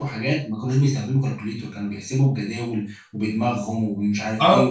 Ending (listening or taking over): taking over